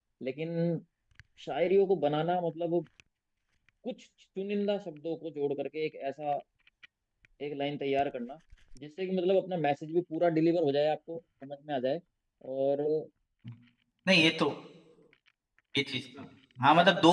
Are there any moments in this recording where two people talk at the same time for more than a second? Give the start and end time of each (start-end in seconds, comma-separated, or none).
none